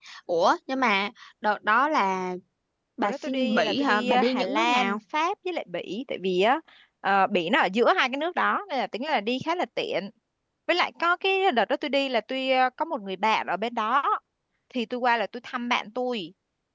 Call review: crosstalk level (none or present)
present